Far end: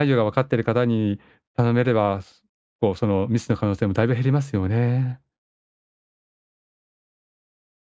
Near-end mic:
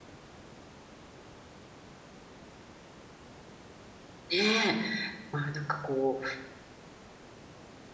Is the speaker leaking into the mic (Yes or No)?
No